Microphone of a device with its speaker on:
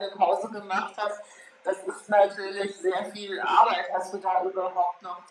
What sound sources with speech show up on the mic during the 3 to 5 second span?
echo only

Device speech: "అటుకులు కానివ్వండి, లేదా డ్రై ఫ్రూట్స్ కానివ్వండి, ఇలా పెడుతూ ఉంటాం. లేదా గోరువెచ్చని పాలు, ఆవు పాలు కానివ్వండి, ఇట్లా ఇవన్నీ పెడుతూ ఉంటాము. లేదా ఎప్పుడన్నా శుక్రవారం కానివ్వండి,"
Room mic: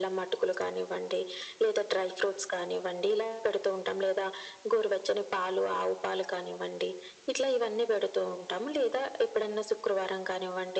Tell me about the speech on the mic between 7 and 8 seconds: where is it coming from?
echo only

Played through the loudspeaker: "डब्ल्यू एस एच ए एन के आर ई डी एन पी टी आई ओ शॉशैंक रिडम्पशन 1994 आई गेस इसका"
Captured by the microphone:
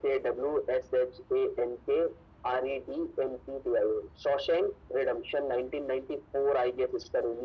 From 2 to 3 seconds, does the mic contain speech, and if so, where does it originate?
echo only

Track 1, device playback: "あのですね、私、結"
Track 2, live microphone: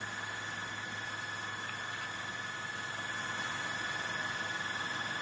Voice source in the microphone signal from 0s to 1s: neither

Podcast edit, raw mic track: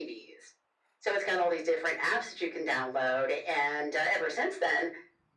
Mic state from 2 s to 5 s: echo only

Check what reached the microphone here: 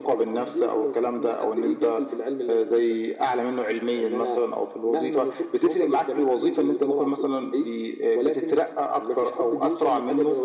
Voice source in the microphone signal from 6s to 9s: echo only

